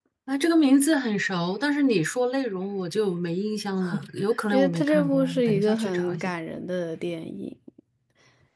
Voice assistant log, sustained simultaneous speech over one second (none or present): present